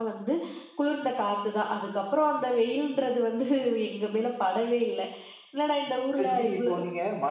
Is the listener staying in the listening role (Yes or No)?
No